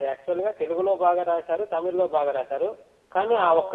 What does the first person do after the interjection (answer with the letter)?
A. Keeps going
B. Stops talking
B